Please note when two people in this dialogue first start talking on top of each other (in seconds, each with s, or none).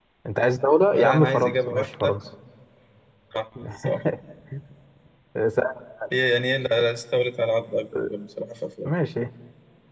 0.9 s